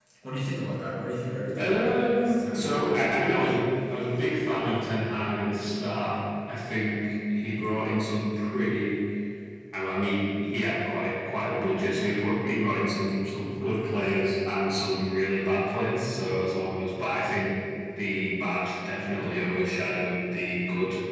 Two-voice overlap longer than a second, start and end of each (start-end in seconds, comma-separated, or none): 1.5-3.2